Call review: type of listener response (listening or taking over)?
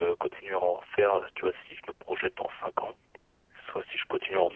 listening